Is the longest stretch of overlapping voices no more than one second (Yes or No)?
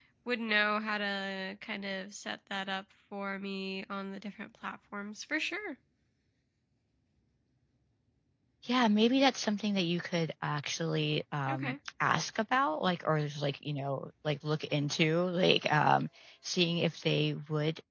Yes